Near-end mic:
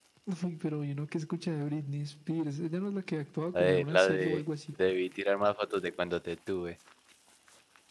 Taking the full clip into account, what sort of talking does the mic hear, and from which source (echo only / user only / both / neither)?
both